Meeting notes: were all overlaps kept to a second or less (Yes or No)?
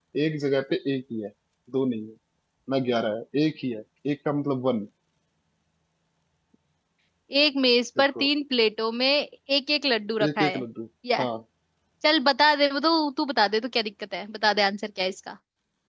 Yes